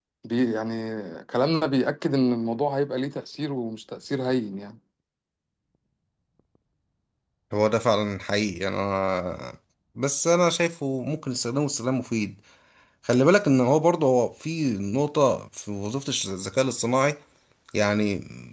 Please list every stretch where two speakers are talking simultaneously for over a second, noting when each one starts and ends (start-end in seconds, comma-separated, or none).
none